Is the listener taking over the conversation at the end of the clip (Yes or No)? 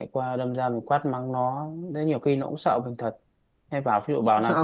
No